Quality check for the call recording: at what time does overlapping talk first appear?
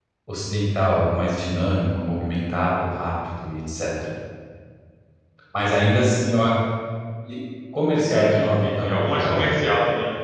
8 s

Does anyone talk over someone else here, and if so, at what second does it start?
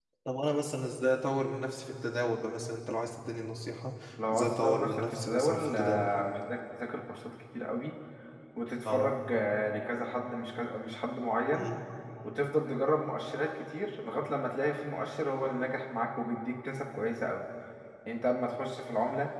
4 s

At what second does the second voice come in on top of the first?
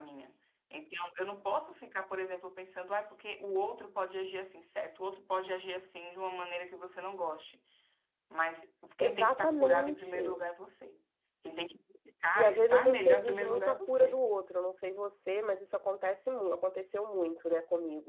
9 s

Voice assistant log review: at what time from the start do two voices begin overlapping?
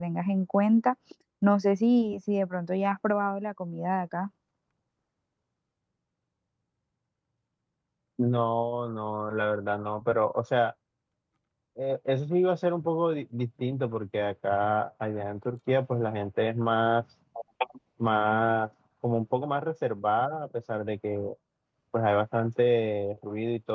none

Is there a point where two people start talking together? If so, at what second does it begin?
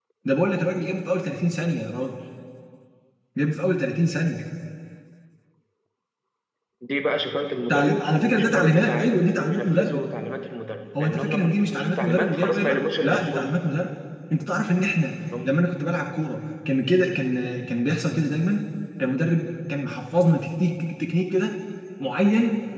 8 s

